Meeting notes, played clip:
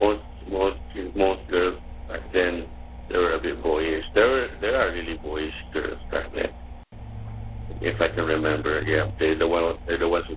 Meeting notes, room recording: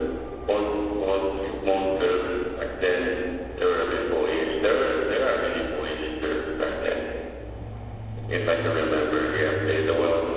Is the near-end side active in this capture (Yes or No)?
No